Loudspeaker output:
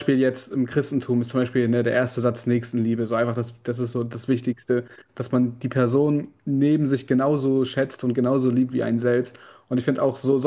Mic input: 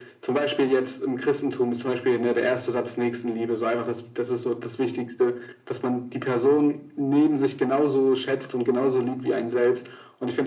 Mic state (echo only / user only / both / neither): echo only